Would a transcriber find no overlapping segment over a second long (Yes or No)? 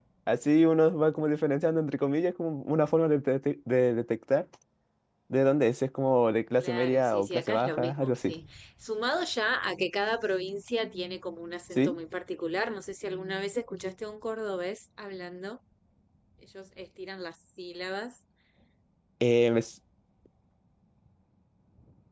No